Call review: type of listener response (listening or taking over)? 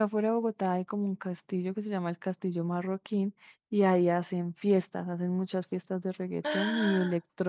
listening